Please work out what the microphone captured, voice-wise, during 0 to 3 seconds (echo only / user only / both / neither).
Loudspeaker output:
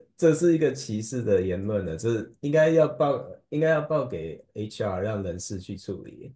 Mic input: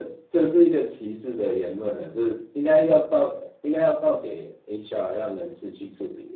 echo only